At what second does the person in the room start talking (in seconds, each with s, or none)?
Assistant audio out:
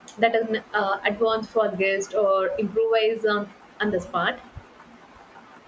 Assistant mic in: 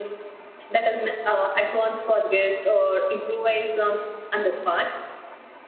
none